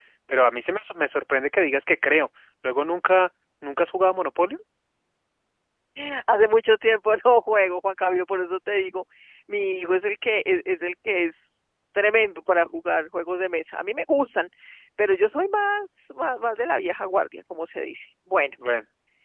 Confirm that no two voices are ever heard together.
Yes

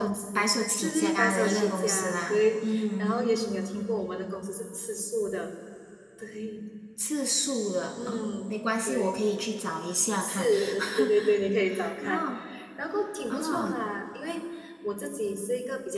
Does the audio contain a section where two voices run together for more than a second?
Yes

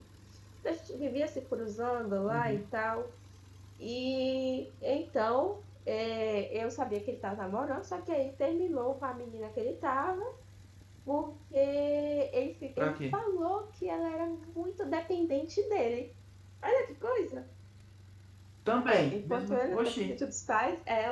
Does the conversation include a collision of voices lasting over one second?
Yes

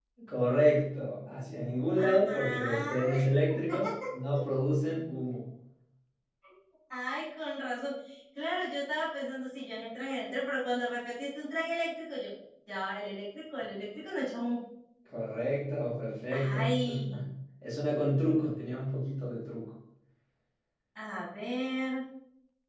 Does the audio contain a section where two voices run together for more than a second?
Yes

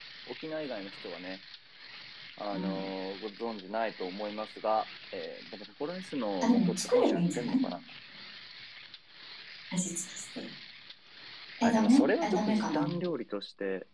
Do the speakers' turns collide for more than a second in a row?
Yes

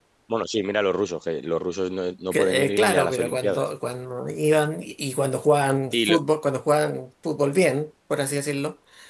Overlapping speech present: Yes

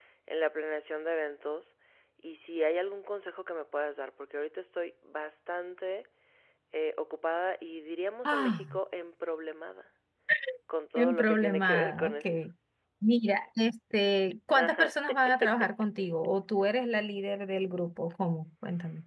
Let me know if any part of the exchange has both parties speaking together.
Yes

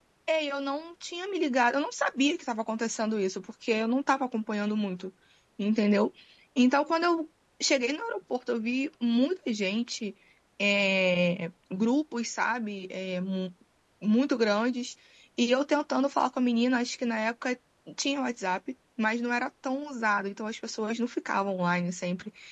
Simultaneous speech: No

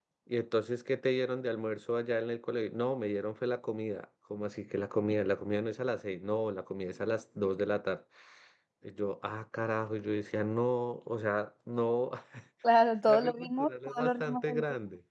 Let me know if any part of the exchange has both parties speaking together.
Yes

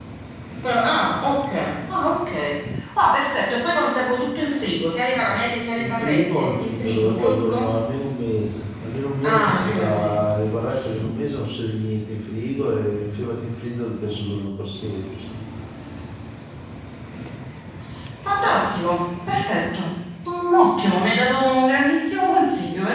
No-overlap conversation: No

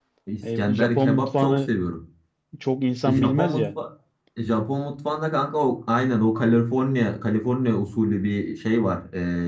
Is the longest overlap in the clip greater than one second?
Yes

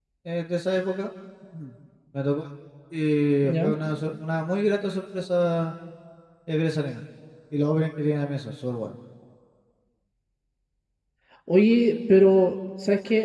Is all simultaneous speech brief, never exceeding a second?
Yes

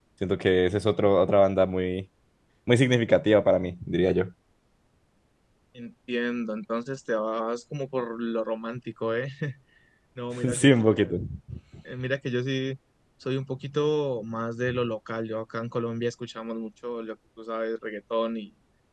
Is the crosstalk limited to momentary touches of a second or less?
Yes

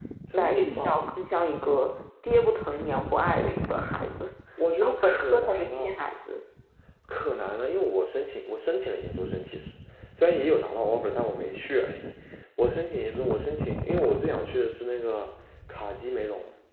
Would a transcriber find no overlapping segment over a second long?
No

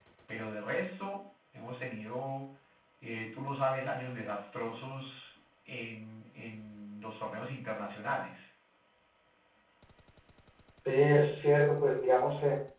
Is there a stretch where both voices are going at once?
No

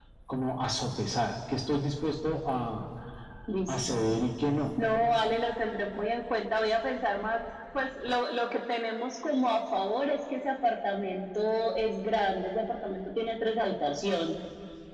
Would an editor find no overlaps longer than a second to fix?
Yes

